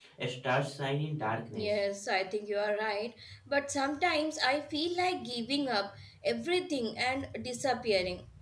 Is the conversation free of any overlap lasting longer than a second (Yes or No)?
Yes